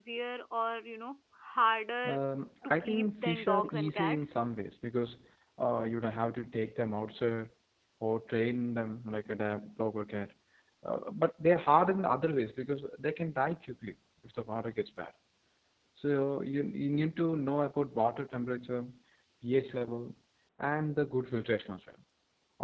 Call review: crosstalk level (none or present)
present